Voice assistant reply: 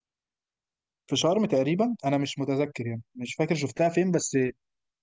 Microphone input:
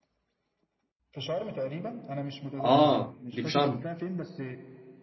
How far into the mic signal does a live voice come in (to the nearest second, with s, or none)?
3 s